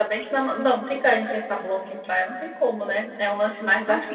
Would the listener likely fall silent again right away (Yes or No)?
Yes